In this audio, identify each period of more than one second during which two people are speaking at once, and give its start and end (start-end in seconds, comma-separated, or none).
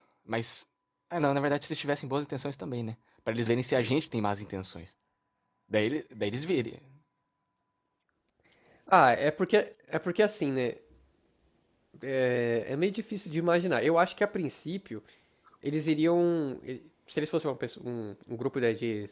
none